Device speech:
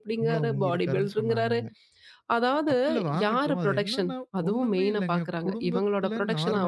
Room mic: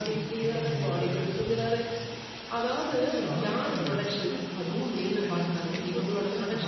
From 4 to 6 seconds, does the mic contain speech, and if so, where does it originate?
echo only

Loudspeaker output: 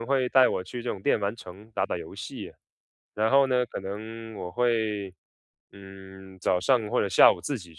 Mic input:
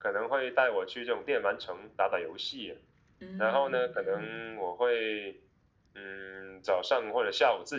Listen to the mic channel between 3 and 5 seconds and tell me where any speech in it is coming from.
both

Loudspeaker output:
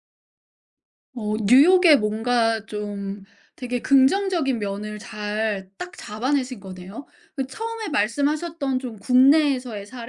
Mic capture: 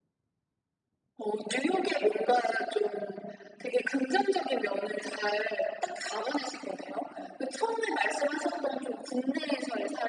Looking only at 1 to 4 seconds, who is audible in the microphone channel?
echo only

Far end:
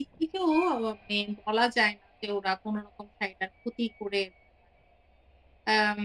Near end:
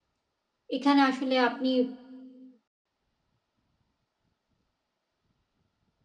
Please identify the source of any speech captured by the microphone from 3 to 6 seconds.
neither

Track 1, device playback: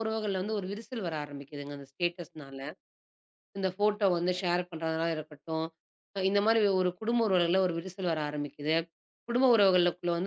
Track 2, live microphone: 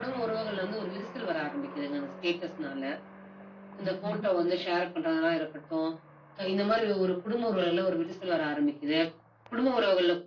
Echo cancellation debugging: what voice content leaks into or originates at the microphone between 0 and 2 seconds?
echo only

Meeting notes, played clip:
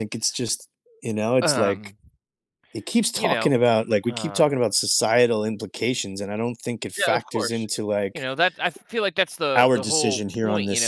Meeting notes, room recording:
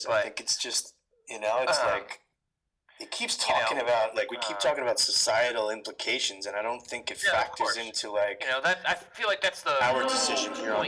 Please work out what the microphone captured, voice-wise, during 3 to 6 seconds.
echo only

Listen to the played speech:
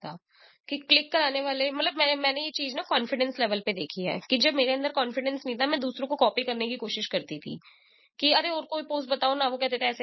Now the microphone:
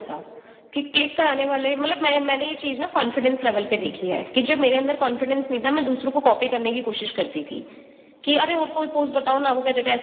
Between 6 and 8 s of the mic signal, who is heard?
echo only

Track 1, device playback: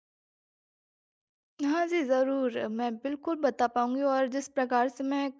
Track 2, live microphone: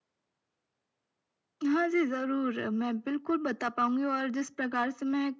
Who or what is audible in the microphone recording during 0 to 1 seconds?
neither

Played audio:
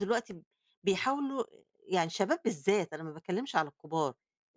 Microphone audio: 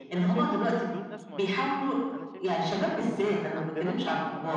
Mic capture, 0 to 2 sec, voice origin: both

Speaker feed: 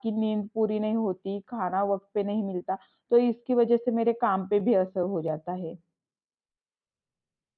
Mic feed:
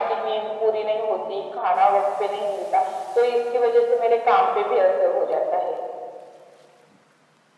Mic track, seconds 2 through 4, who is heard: echo only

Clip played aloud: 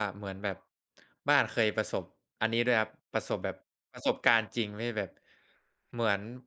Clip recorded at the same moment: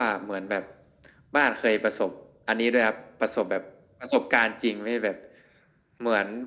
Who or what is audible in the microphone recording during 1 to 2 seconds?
echo only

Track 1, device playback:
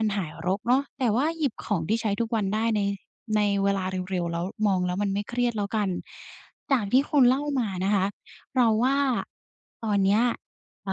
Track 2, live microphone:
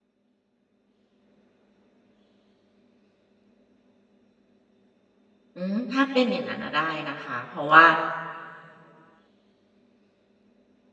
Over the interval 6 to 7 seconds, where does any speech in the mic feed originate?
user only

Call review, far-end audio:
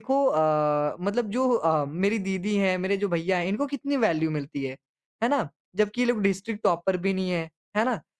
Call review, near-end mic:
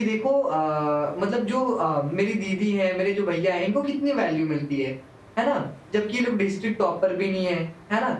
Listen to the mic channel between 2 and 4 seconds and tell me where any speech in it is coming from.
echo only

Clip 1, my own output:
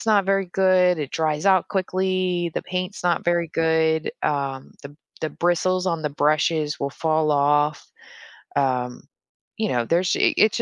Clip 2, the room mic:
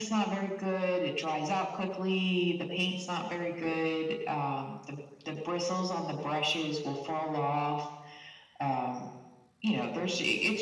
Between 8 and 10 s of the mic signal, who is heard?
echo only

